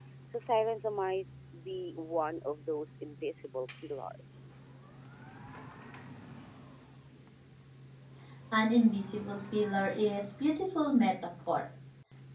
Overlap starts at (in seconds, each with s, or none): none